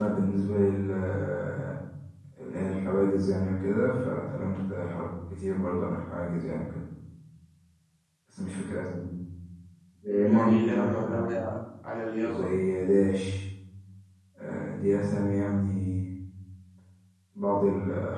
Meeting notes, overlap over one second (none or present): present